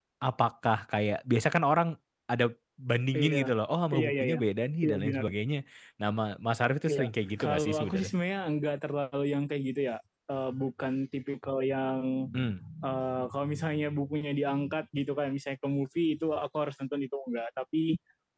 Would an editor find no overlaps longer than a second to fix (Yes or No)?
No